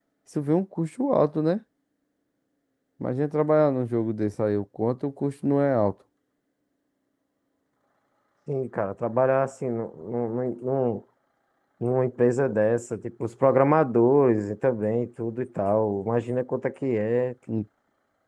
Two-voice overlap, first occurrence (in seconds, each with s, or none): none